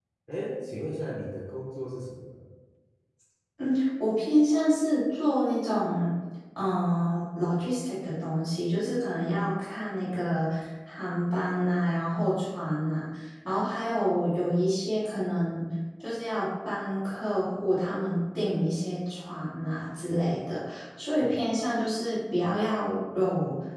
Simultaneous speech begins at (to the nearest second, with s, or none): none